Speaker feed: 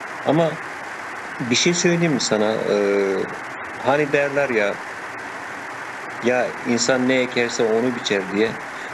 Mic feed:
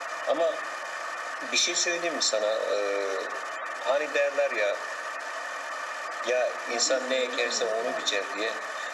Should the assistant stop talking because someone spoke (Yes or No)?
Yes